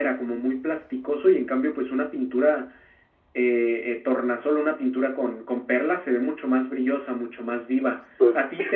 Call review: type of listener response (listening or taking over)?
listening